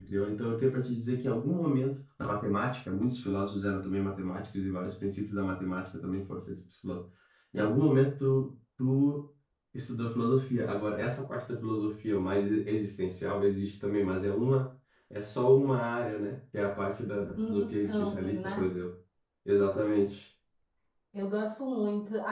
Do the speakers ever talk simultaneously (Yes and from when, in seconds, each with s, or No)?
Yes, from 17.4 s